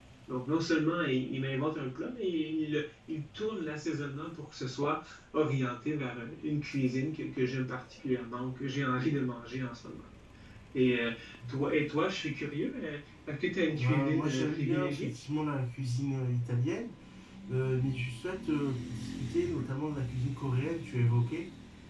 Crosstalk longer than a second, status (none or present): present